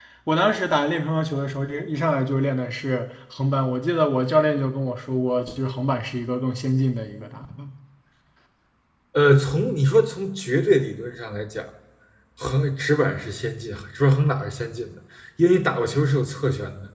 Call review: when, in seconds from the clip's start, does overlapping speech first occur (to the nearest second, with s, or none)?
none